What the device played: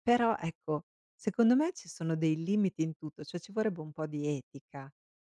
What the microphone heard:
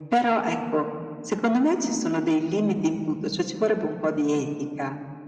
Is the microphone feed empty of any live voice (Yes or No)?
Yes